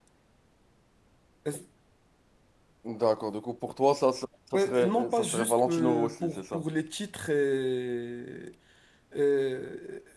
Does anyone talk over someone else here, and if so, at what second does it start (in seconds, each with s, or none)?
4.5 s